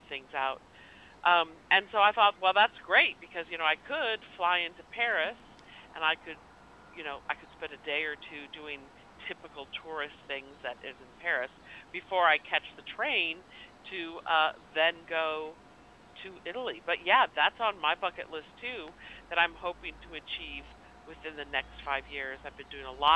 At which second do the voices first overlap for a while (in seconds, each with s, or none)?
none